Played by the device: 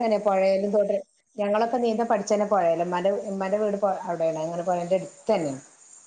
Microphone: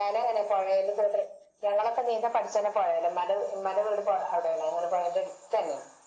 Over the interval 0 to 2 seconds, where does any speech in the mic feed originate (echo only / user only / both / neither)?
echo only